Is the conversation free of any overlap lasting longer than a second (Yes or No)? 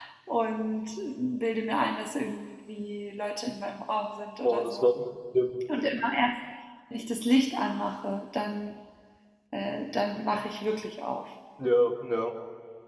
Yes